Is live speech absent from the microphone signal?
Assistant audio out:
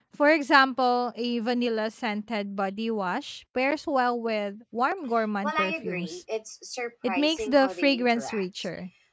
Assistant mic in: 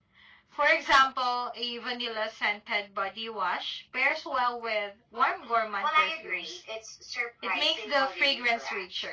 Yes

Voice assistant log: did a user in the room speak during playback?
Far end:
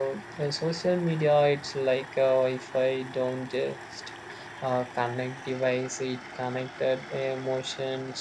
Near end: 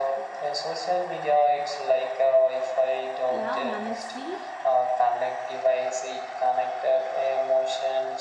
Yes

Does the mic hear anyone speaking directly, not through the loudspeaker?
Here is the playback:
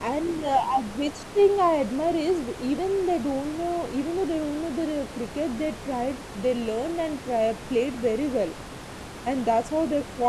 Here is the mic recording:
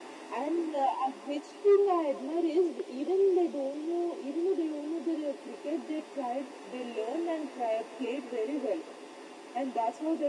No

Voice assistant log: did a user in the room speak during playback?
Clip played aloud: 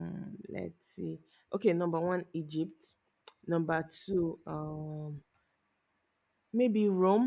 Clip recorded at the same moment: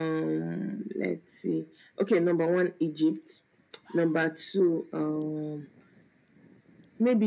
No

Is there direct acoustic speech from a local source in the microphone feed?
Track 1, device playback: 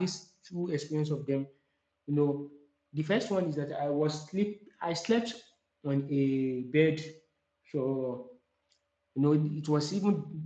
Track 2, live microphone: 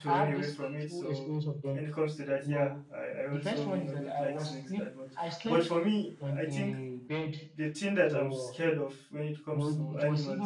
Yes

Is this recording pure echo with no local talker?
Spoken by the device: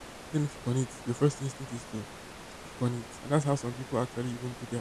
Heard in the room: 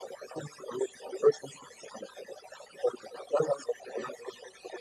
Yes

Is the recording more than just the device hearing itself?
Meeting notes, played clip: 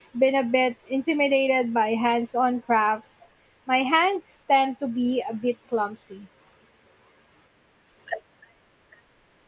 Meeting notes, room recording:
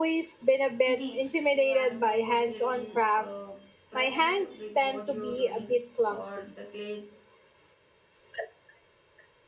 Yes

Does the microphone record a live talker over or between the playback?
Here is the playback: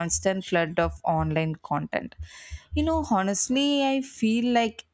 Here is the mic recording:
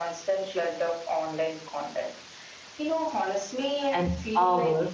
Yes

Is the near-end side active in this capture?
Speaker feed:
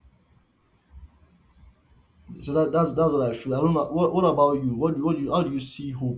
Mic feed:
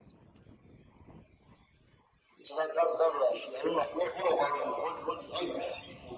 No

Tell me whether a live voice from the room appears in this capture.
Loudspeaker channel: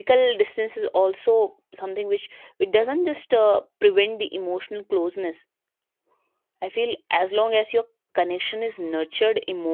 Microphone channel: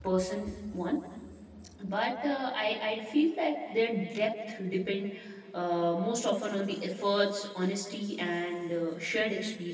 Yes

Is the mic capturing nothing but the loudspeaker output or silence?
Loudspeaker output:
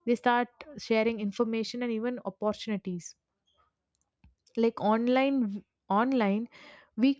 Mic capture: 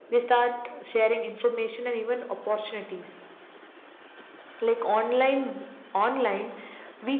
Yes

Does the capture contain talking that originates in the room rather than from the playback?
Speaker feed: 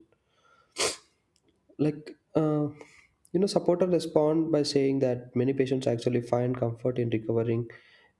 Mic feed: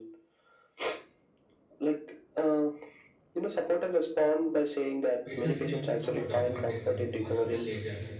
Yes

